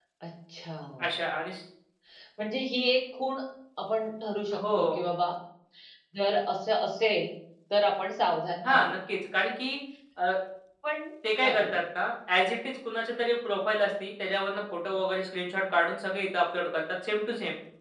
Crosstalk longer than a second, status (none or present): none